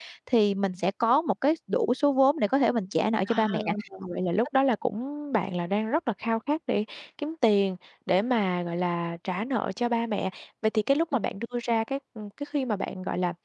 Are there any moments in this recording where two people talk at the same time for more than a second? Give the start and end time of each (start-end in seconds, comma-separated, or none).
none